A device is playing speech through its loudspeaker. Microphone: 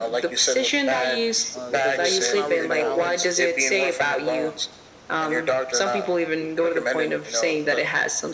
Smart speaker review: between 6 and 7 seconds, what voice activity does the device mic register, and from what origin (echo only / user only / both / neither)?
echo only